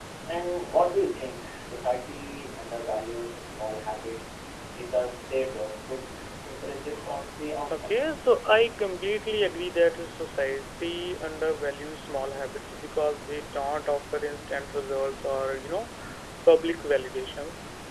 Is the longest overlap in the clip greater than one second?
No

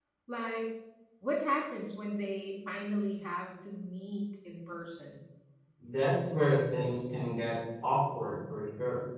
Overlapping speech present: No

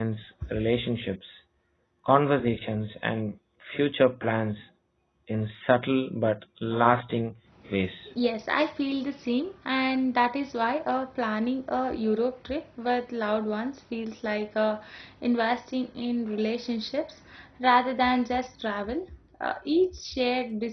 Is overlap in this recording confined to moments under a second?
Yes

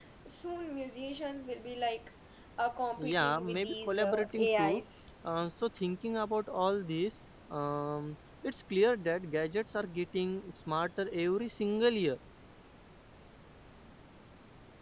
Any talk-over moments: Yes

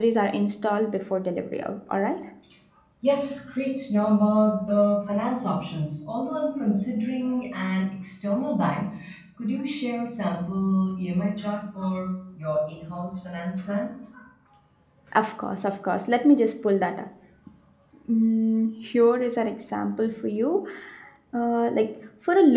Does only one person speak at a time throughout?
Yes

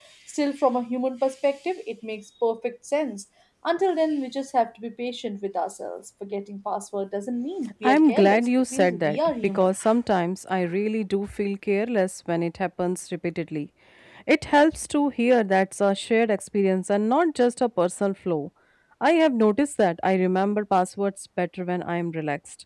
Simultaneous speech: Yes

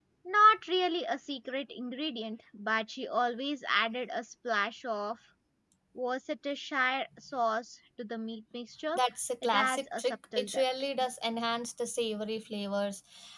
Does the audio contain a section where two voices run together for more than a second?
Yes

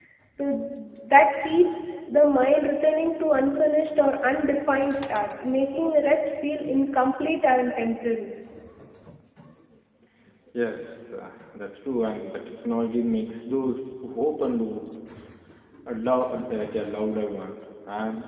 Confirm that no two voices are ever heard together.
Yes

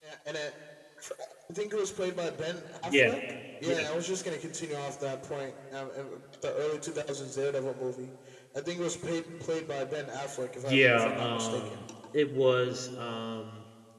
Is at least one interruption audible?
Yes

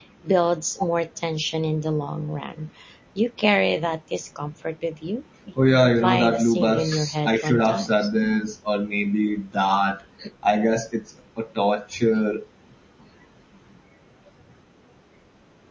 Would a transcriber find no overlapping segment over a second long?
No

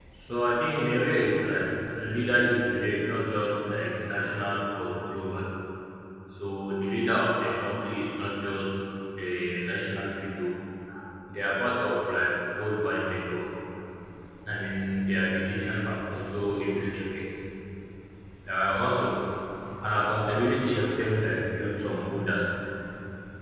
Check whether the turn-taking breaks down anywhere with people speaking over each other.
No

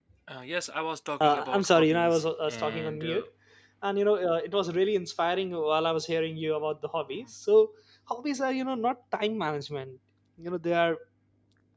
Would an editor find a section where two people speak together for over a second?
Yes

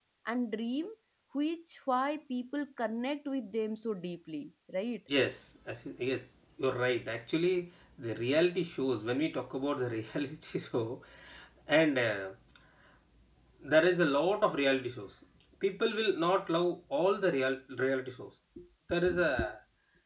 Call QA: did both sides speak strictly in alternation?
Yes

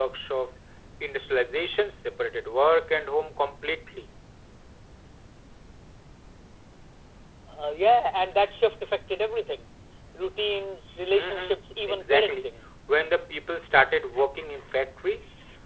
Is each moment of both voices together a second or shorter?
No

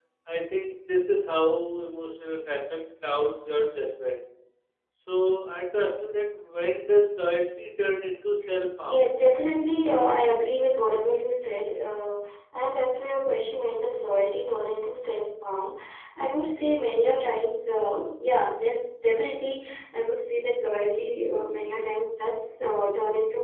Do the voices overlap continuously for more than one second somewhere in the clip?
No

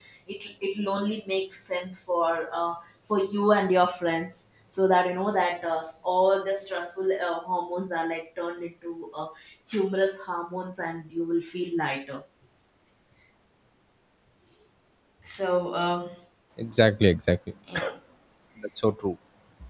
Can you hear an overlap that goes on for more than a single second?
No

